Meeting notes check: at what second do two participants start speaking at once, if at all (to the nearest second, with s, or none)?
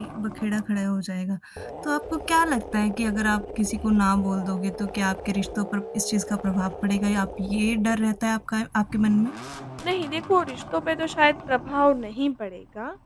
none